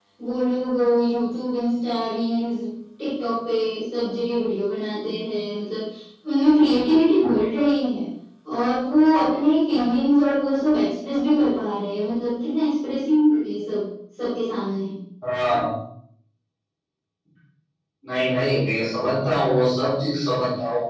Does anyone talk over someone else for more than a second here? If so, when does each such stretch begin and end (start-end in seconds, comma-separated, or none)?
none